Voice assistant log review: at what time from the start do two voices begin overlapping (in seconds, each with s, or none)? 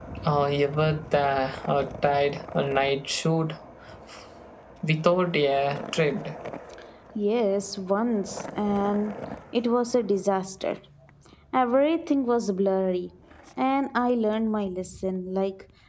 none